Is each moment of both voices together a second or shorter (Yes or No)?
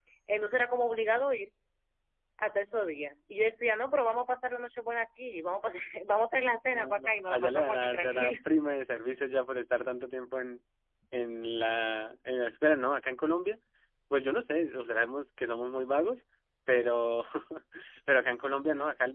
No